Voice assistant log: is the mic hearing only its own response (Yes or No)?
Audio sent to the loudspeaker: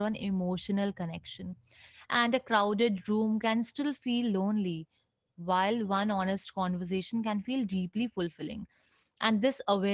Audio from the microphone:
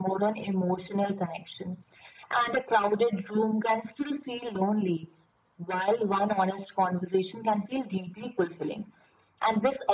Yes